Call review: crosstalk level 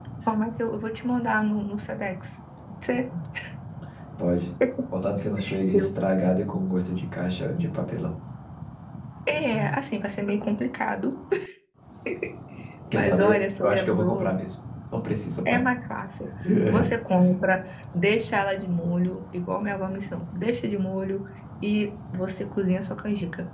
present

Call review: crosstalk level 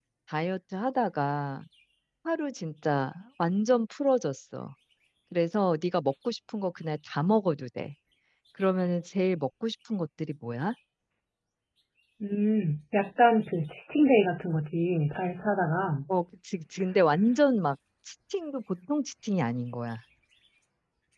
none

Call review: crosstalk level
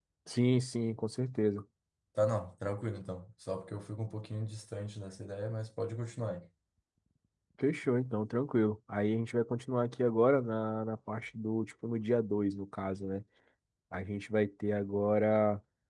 none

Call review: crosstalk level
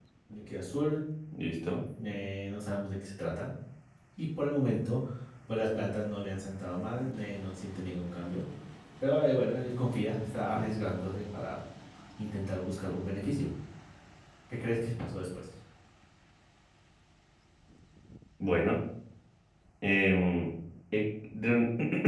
none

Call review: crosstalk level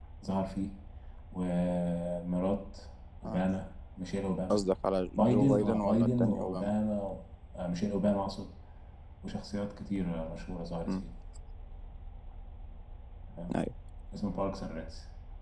present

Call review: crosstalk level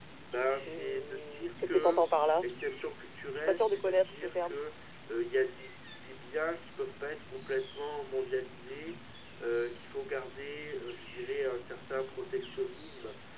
present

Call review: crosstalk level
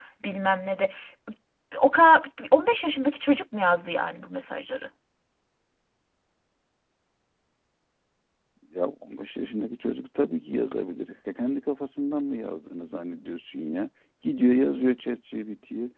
none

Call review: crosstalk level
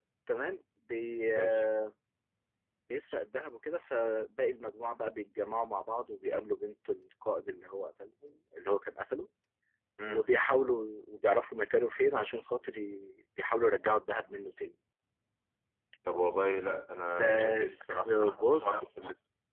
present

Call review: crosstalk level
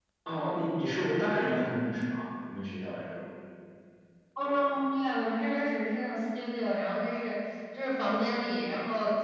none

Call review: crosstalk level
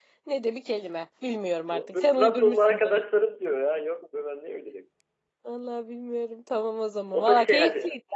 present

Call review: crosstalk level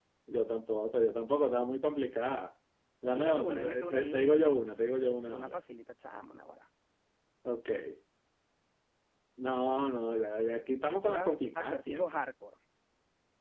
present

